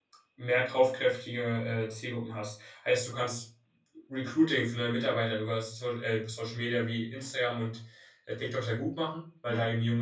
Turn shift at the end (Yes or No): No